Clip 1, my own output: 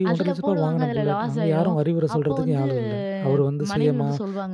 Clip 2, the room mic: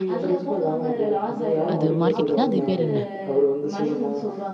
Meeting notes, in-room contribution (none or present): present